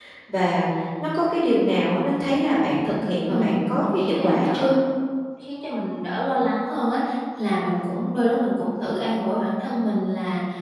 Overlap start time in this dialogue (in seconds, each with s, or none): 3.3 s